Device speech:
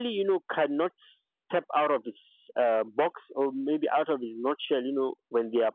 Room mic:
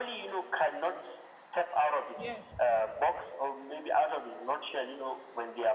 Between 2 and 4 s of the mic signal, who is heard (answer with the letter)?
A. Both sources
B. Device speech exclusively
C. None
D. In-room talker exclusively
A